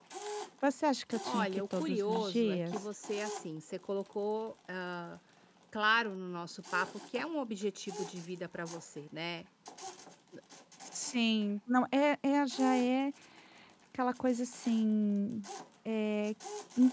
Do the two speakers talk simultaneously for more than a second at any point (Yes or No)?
Yes